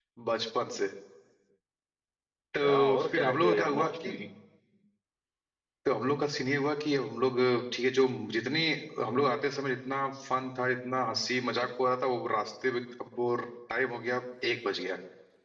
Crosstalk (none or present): present